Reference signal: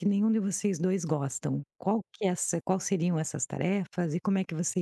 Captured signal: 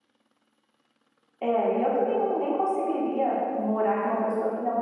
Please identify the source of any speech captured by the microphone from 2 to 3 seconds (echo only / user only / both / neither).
user only